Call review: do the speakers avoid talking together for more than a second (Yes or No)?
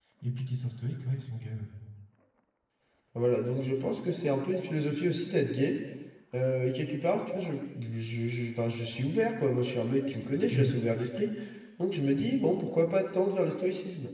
Yes